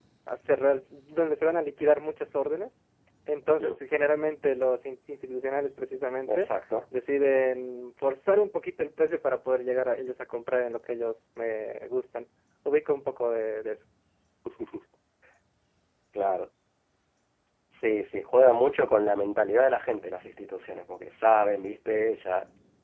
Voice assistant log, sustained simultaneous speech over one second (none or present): none